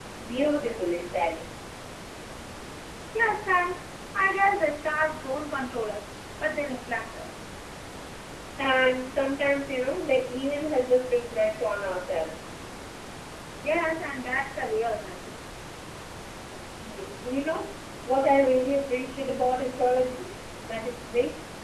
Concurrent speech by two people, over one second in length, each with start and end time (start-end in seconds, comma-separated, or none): none